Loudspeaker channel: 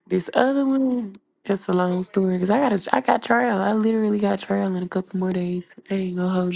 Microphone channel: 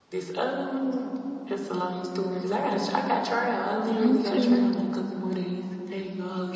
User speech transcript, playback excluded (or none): Okay.